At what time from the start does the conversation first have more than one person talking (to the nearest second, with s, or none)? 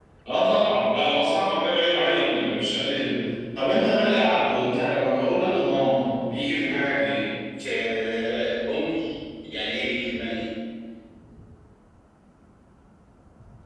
none